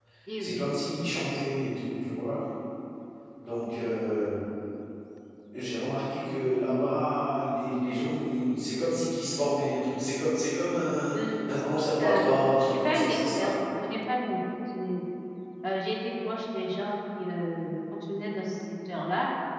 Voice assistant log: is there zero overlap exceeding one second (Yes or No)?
No